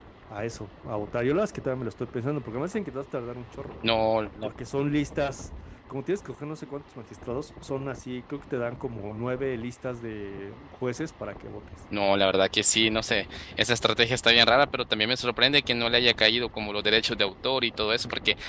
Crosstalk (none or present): none